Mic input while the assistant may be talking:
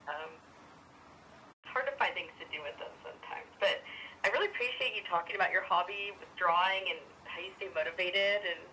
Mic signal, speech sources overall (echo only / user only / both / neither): echo only